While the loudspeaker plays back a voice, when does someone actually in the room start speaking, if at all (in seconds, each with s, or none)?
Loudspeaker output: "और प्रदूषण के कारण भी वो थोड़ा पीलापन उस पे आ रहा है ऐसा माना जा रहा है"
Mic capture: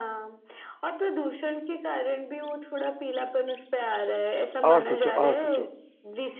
4.6 s